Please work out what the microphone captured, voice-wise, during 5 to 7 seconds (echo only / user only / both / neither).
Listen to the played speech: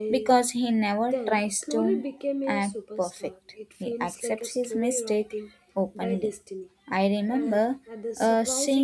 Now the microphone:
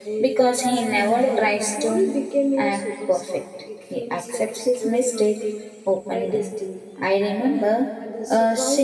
echo only